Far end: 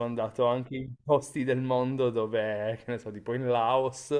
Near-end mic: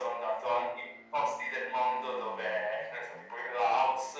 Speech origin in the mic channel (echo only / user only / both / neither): echo only